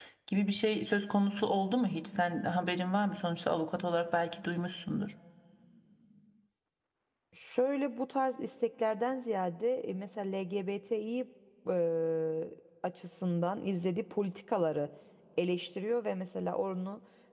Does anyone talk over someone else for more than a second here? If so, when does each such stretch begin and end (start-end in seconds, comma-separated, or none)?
none